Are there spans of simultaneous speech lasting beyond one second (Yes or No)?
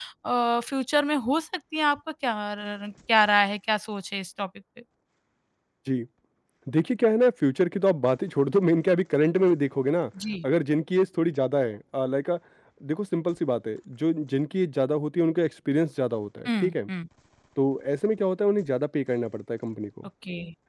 No